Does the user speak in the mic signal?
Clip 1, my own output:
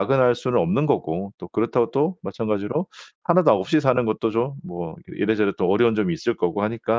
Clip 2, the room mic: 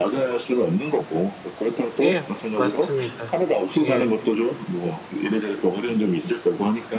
Yes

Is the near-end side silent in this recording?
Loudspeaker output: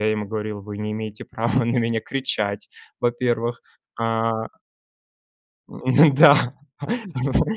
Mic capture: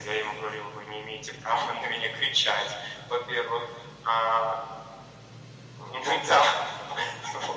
Yes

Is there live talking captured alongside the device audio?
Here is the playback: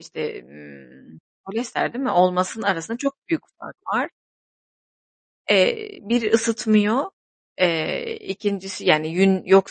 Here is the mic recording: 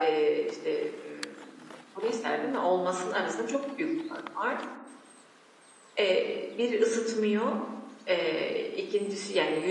No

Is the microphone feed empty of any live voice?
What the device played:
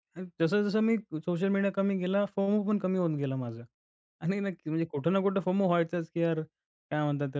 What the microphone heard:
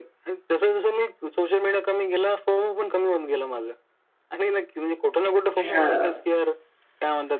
No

